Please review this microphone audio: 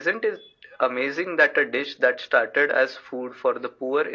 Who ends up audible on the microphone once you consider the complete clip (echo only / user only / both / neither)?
echo only